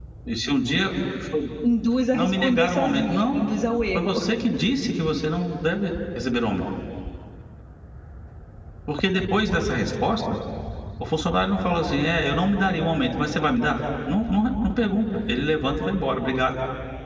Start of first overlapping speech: 2 s

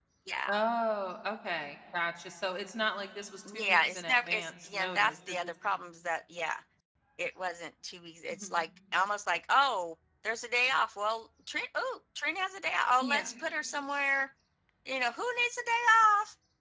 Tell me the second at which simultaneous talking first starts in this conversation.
4 s

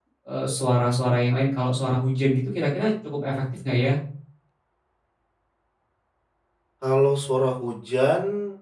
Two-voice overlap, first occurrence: none

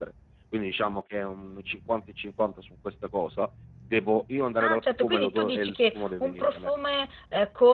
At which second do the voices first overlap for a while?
5 s

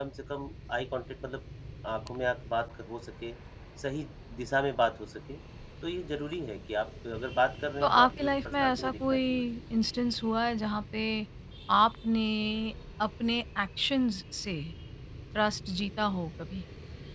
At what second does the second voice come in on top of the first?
8 s

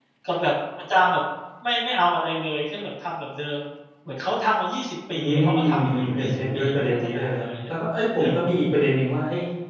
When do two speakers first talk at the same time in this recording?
5 s

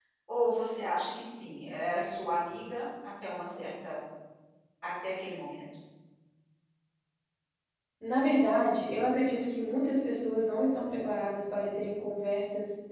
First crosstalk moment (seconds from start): none

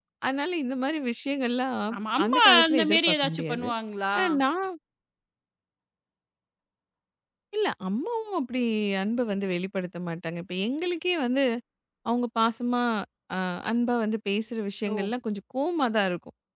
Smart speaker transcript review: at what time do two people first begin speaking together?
2 s

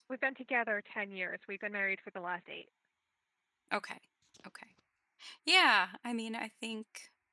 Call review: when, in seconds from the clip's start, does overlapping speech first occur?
none

